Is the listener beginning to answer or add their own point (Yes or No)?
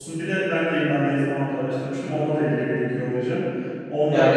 Yes